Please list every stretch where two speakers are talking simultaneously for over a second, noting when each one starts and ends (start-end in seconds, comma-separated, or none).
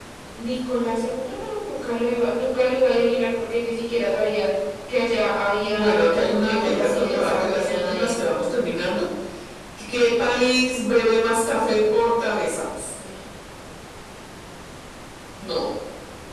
5.8-8.2